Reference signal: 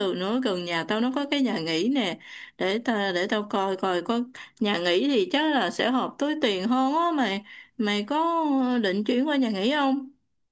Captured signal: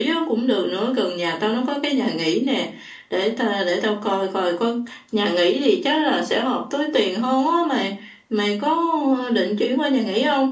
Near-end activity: none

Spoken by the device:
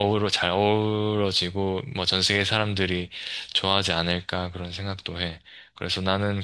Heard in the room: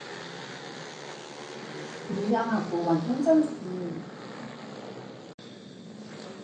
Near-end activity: present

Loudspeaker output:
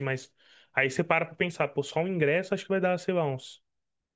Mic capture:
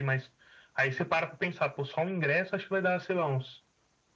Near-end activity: none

